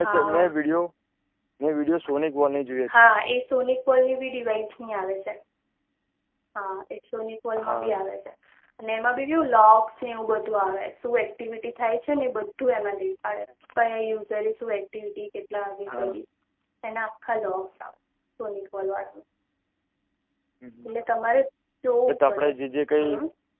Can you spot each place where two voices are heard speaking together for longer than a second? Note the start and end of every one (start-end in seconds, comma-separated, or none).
none